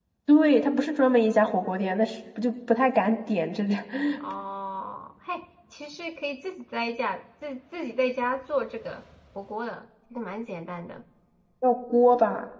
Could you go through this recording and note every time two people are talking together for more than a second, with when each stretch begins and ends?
none

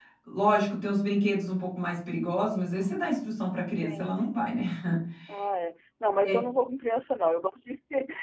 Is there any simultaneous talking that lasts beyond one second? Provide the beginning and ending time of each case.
none

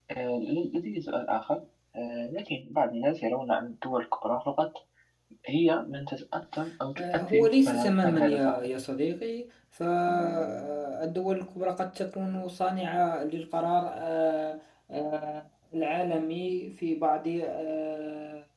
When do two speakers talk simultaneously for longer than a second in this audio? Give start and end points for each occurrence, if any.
7.0-8.7

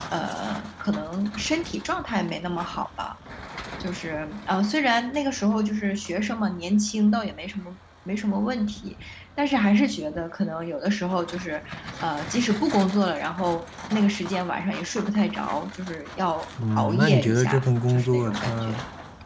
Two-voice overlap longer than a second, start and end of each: 16.8-18.8

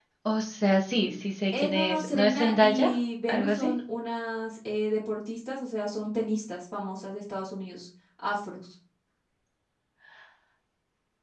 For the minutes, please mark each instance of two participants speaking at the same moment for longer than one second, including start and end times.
1.5-2.9

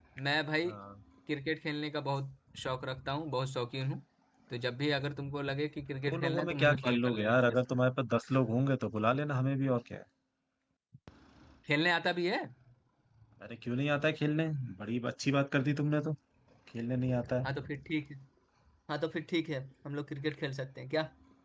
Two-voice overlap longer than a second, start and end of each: 6.1-7.6

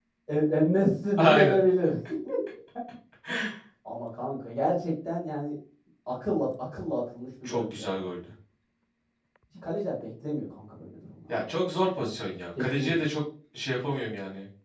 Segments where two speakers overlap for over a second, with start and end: none

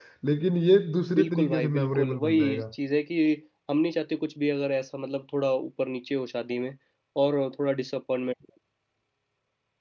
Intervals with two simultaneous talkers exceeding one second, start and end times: 1.1-2.6

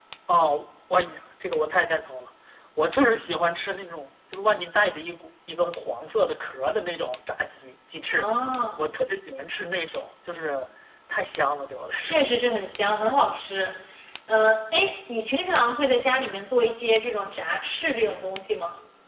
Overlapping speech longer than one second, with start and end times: none

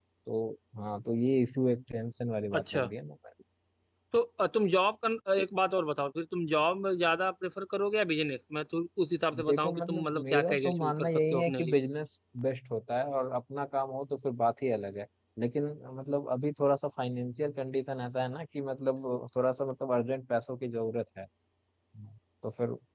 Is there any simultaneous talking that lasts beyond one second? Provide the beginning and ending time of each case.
9.4-11.8

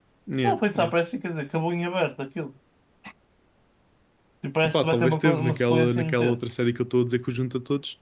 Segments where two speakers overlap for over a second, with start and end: 4.6-6.4

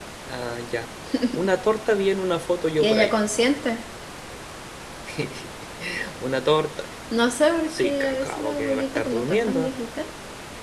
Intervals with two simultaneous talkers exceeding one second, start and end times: 7.7-9.7

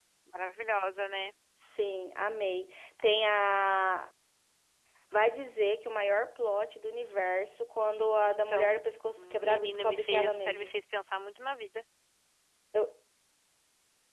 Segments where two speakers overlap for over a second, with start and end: 9.2-10.7

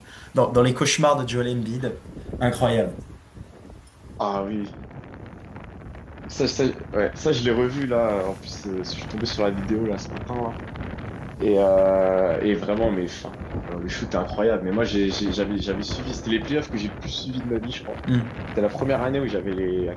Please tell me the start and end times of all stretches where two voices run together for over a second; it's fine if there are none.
none

